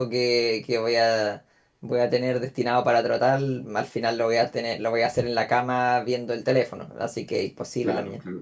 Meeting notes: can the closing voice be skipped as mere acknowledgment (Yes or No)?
No